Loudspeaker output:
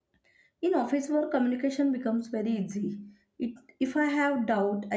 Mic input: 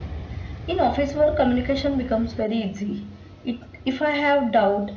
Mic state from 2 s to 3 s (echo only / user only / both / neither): echo only